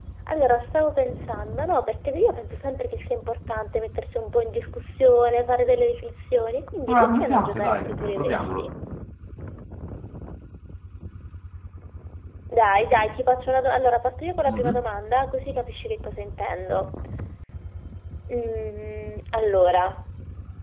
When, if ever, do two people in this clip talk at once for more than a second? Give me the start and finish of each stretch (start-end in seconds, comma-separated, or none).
6.9-8.7